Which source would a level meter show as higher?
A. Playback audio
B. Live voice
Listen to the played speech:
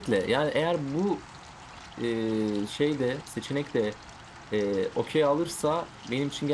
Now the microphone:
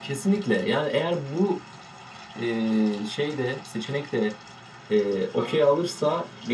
A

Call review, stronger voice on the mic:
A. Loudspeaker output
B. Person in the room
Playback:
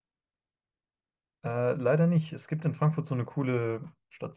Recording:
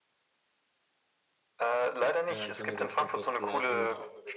A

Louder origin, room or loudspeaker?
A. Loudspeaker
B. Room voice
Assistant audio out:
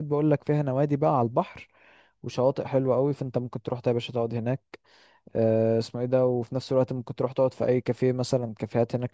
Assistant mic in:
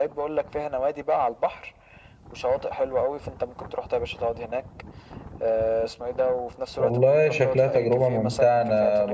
B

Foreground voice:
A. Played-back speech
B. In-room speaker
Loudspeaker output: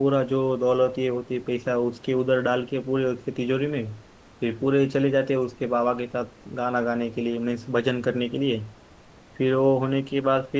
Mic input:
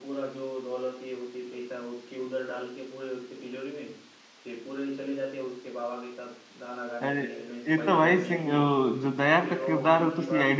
B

